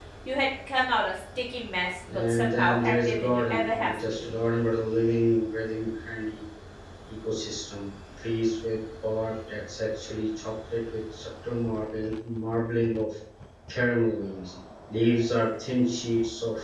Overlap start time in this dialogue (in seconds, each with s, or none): 2.1 s